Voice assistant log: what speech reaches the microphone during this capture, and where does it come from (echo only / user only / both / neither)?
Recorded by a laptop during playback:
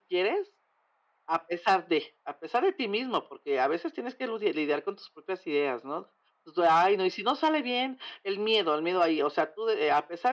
echo only